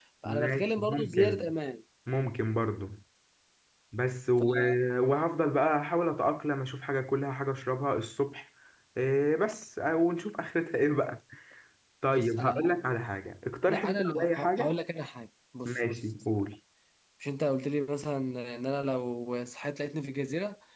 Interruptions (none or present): present